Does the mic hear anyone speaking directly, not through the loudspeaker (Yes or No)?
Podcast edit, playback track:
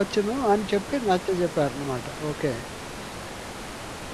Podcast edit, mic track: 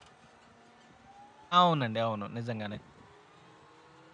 Yes